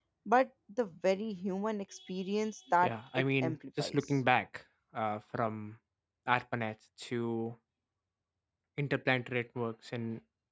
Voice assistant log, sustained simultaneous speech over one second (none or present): present